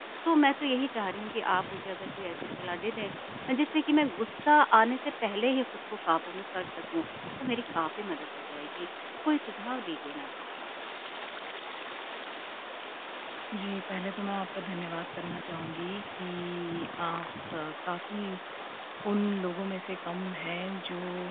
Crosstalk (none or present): none